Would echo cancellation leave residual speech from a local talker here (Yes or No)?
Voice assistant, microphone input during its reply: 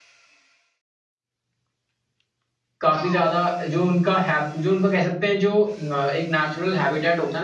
Yes